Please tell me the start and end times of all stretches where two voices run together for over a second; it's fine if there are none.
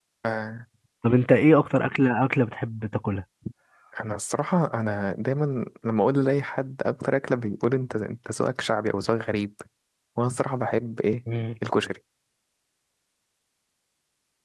none

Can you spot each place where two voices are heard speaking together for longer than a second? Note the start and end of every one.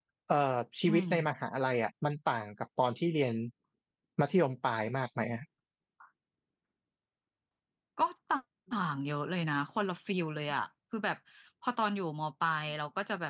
none

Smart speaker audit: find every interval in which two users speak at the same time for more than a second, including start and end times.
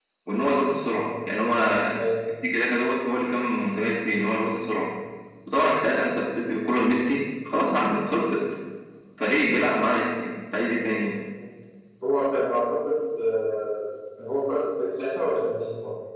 none

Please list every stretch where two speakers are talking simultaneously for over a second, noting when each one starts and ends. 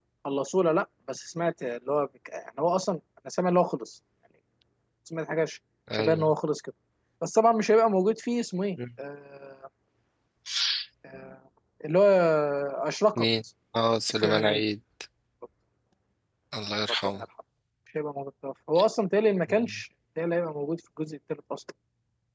none

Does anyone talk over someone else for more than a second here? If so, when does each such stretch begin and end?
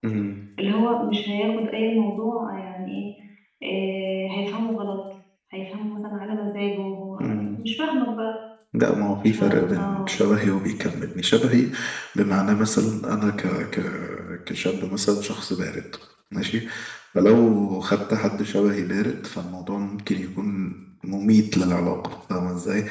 none

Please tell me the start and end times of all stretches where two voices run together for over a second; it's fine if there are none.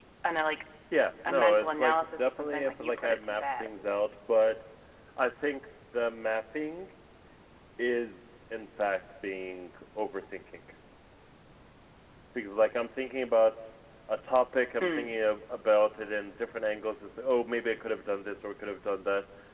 1.3-3.7

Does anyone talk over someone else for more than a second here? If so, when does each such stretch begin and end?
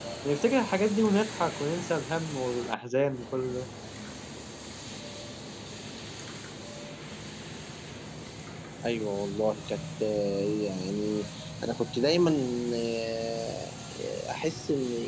none

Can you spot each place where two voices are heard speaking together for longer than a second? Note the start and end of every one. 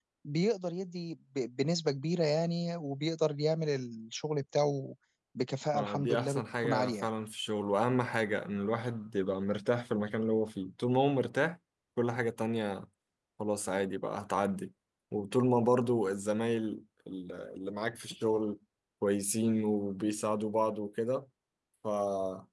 5.7-7.0

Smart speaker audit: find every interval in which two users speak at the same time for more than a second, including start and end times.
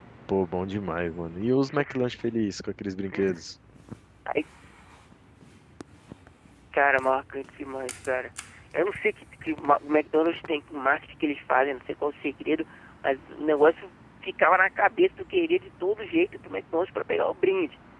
none

